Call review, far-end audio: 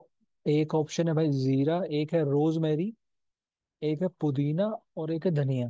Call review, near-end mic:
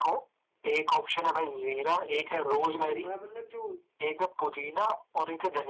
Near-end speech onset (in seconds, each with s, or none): 2.2 s